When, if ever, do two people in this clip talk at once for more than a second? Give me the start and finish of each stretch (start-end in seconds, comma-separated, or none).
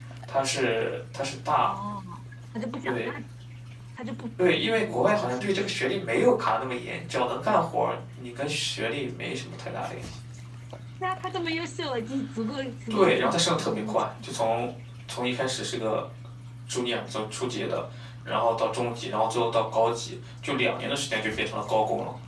4.4-5.8, 12.9-14.4